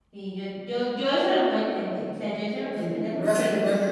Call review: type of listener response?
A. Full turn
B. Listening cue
A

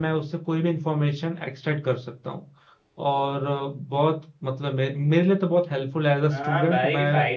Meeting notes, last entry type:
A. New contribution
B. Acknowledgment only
A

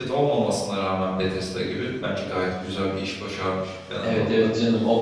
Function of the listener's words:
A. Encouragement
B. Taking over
B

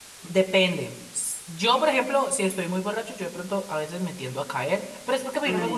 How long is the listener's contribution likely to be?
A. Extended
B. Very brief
B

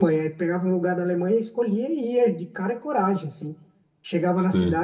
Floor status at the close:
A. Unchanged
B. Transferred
A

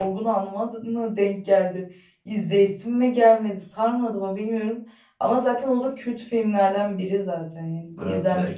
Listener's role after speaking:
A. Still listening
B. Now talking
B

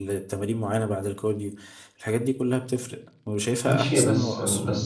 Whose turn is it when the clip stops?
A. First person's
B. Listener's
B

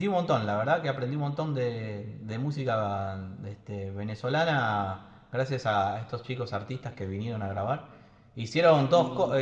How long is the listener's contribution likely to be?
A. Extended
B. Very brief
B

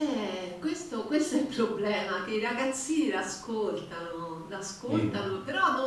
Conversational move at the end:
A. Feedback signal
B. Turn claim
A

